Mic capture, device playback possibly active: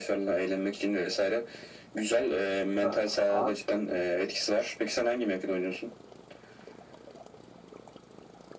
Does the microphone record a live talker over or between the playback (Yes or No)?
Yes